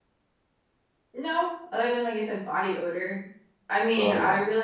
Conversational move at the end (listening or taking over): listening